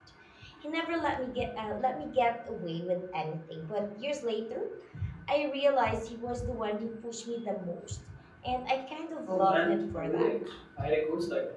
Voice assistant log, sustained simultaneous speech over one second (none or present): present